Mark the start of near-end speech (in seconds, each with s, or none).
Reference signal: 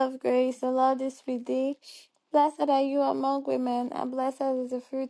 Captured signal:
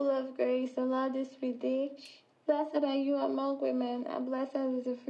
none